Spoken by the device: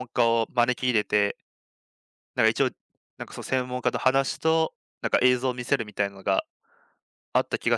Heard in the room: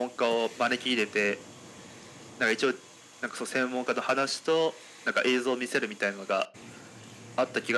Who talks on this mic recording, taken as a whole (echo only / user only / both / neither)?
echo only